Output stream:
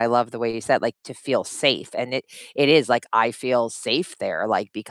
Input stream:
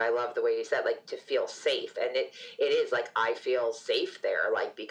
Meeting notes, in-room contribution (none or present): none